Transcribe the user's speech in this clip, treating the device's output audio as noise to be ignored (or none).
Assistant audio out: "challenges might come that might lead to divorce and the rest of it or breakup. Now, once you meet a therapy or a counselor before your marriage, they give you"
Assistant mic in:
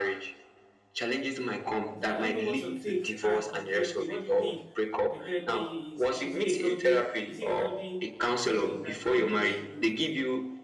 So I don't know what your take are on therapy. What do you think uh, therapy is? Is it a healthy? Is it a healthy something that anybody should do?